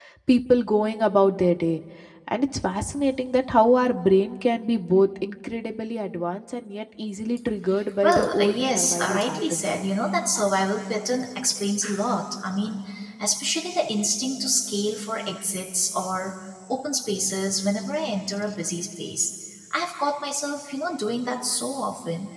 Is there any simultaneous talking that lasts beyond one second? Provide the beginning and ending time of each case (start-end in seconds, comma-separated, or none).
8.0-9.6